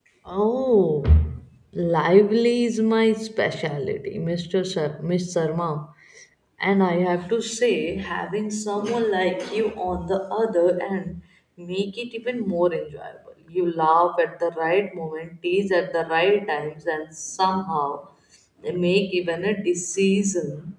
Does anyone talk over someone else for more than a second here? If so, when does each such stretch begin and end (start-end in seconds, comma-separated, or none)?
none